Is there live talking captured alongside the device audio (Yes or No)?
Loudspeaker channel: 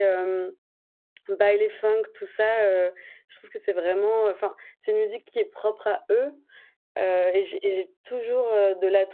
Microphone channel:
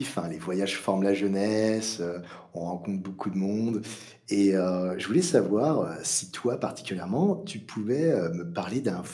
Yes